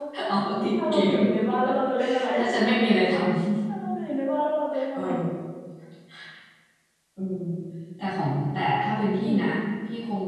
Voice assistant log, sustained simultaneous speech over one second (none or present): none